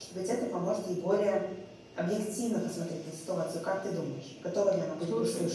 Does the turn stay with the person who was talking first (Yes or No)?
No